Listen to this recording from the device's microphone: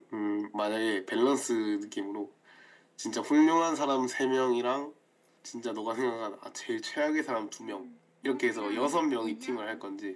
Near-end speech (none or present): present